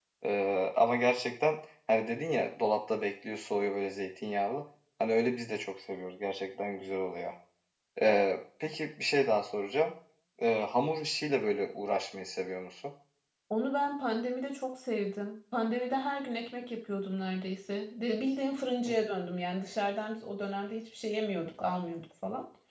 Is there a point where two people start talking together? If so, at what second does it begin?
none

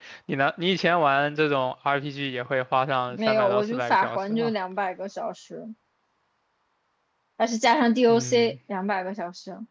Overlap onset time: 3.1 s

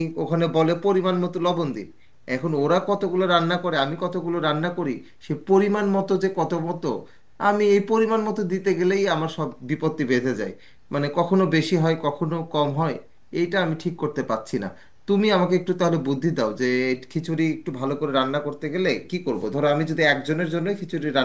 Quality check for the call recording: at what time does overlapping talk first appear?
none

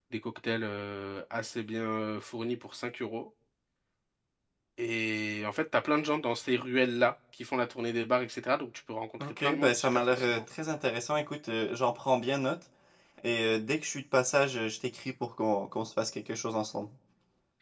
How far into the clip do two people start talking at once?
9.2 s

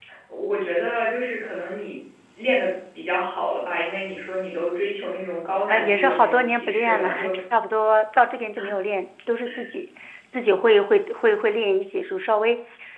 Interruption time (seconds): 5.7 s

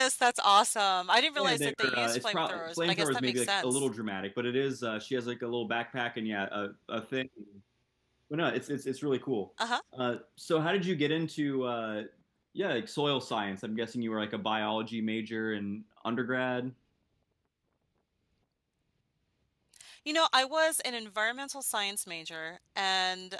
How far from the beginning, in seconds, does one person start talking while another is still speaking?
1.4 s

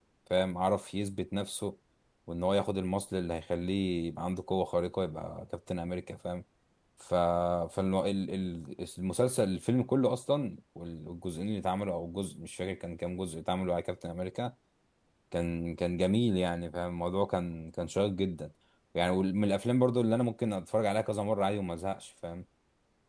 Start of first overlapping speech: none

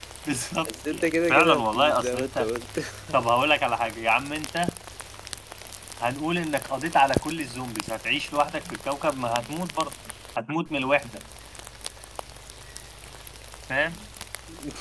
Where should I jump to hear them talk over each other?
0.7 s

